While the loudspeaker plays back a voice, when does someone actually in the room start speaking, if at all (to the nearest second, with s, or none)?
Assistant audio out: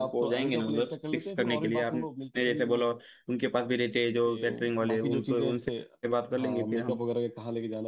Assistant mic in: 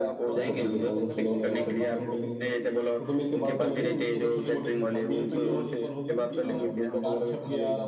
0 s